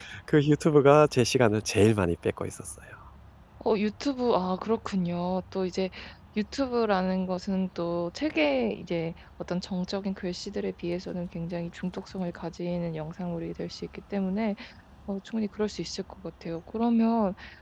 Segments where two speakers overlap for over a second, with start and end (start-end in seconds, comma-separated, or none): none